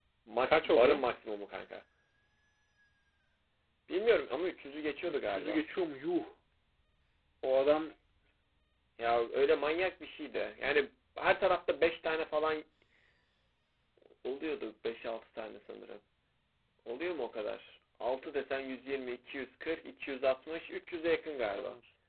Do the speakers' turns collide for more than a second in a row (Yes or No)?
No